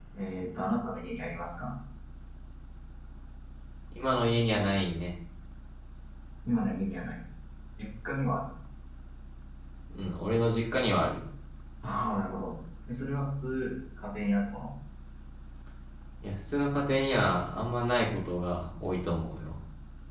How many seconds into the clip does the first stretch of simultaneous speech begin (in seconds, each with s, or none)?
none